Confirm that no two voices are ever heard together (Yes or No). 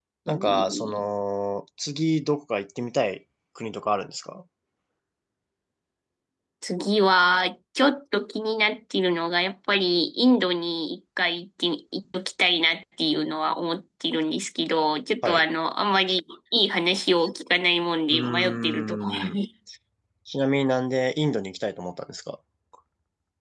No